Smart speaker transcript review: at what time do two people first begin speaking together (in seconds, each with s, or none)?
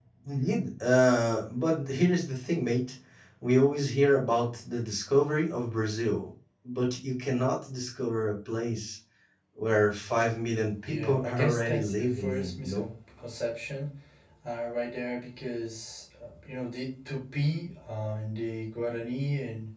10.9 s